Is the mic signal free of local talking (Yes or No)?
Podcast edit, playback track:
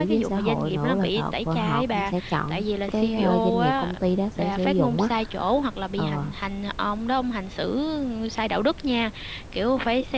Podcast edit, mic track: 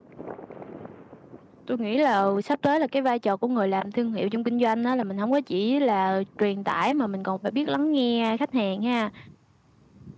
No